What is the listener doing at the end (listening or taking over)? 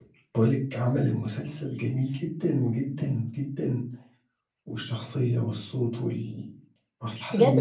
taking over